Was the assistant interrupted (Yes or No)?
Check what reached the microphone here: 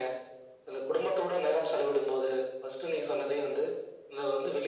No